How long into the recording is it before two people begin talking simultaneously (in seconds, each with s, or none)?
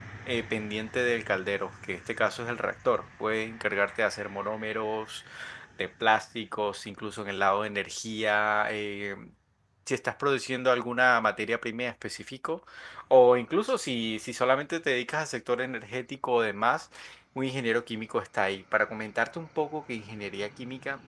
none